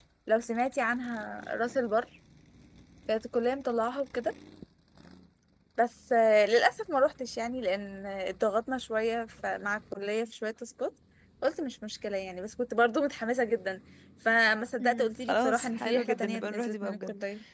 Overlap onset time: 14.8 s

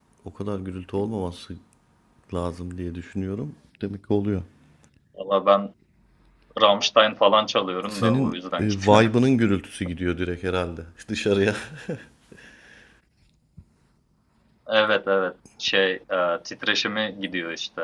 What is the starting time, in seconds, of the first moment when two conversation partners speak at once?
7.8 s

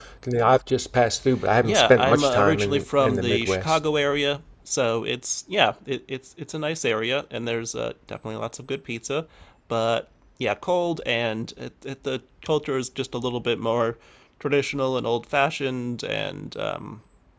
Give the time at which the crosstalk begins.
1.6 s

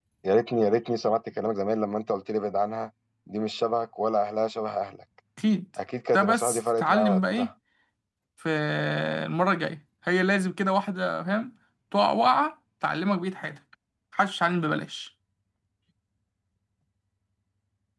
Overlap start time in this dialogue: 6.1 s

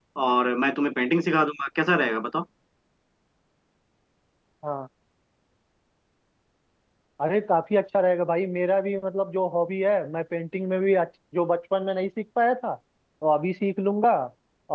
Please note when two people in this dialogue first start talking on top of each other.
none

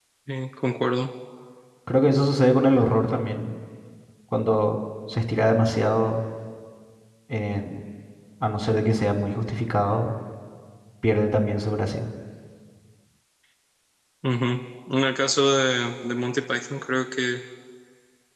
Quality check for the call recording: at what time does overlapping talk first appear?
none

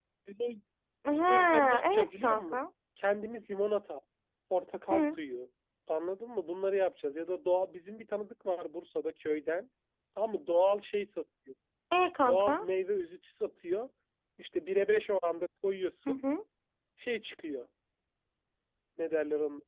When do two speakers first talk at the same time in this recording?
1.2 s

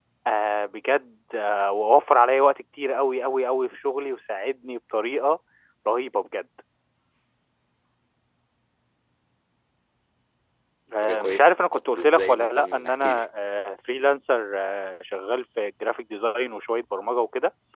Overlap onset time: 11.0 s

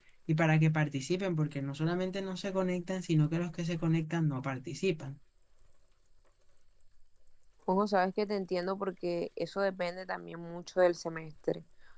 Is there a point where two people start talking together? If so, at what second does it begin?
none

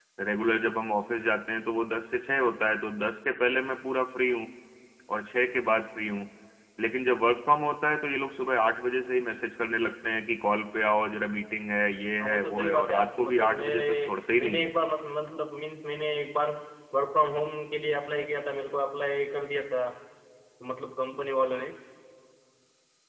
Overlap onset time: 12.2 s

